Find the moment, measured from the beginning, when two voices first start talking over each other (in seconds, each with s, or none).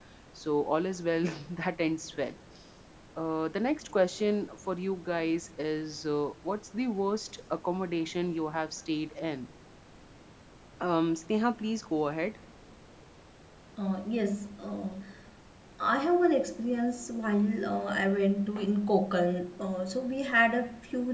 none